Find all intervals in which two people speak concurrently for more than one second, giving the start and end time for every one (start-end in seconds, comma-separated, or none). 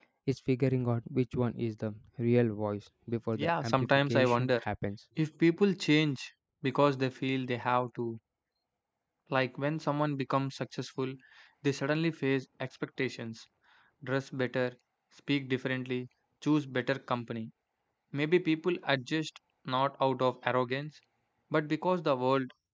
3.3-4.6